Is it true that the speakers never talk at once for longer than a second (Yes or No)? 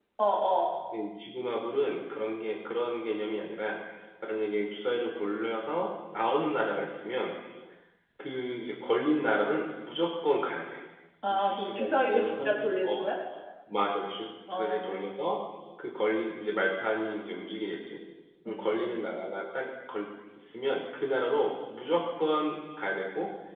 No